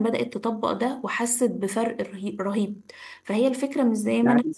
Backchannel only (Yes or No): Yes